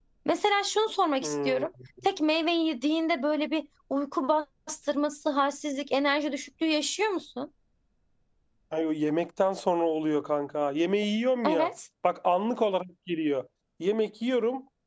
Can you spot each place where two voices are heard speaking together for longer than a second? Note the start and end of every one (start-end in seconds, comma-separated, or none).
none